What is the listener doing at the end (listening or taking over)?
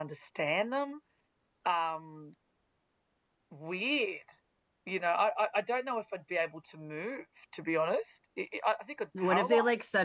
taking over